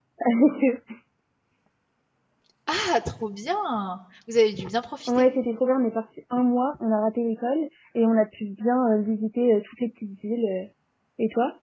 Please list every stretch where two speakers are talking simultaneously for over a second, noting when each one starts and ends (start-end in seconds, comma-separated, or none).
none